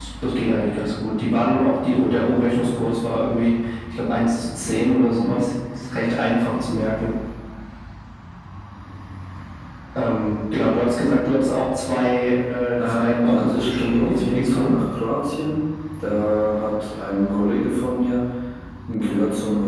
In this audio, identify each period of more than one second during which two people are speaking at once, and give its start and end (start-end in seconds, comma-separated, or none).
12.8-14.8